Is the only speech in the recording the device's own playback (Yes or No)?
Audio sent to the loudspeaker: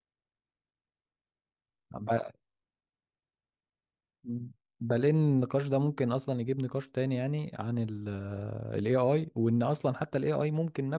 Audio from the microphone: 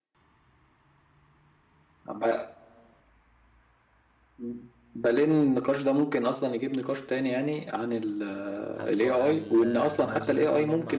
No